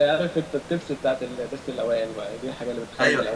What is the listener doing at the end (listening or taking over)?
taking over